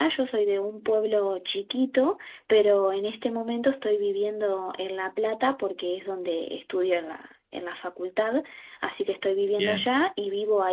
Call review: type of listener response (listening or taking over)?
listening